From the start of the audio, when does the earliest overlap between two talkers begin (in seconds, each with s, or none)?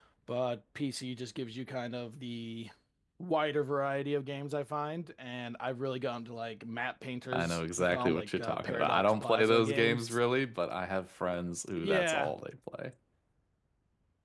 7.3 s